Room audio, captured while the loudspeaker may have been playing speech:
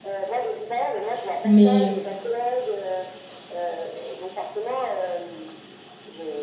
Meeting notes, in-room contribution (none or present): present